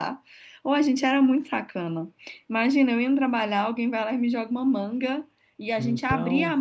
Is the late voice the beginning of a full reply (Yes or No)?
No